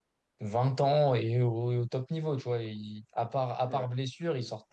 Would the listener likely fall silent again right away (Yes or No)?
Yes